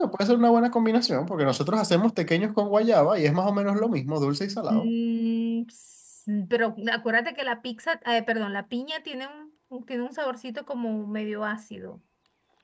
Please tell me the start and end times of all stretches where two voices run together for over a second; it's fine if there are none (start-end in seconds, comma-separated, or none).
none